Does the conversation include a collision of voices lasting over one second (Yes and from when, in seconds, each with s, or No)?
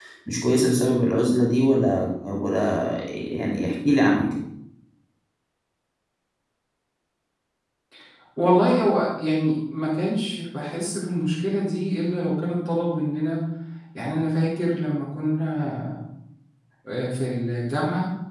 No